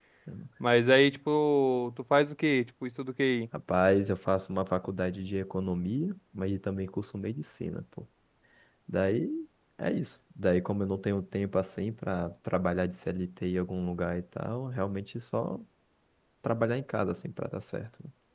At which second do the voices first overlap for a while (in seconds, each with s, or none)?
none